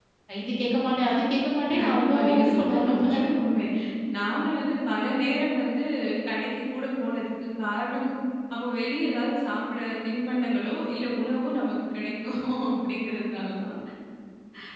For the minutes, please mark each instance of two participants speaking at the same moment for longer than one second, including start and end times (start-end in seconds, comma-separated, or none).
1.8-3.0